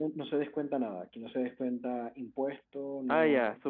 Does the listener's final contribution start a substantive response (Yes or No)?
Yes